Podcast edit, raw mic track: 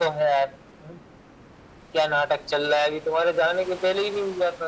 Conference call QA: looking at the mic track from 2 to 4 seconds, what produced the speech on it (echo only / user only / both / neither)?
echo only